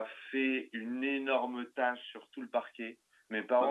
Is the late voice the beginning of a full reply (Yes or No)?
No